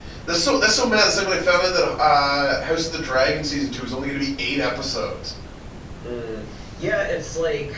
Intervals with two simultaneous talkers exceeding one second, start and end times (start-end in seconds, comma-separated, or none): none